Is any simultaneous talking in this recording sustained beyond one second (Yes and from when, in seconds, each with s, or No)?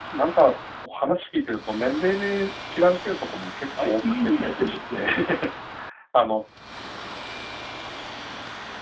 Yes, from 3.8 s